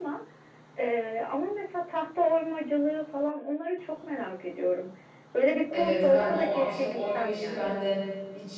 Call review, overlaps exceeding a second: present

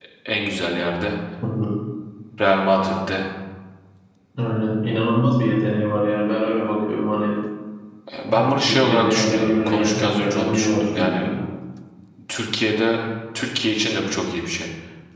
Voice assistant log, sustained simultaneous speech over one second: present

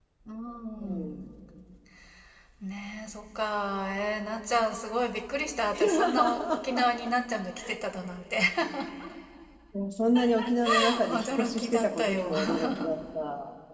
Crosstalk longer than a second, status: present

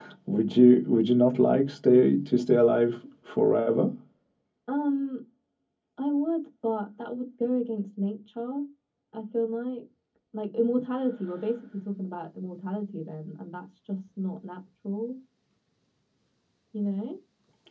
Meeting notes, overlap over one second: none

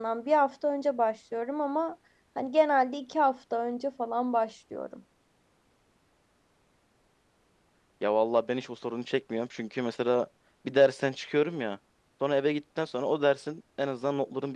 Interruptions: none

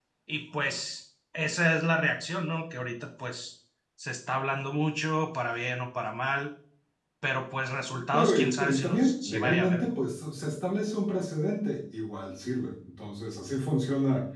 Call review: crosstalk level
present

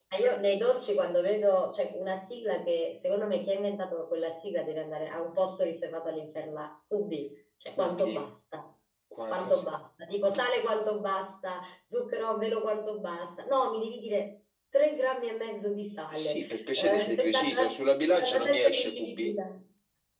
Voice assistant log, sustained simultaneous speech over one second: present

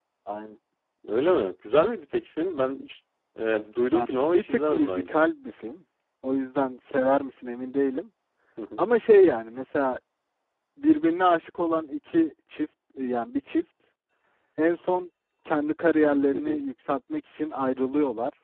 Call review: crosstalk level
present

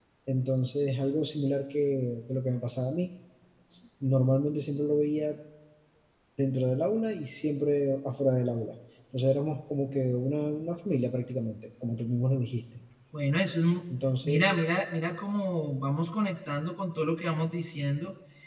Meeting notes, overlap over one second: none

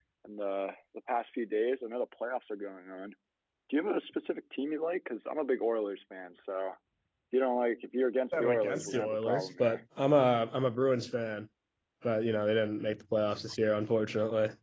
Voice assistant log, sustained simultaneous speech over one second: present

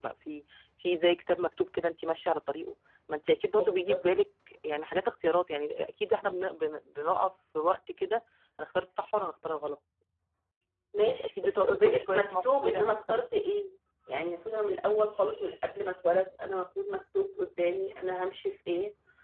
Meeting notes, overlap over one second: present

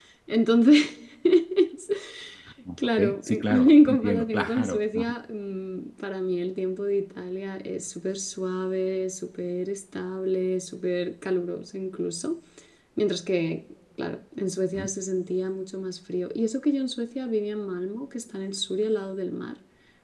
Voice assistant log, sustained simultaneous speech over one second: present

